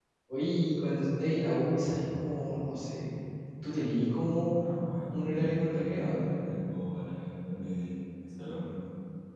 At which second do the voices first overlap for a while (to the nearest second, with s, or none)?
5 s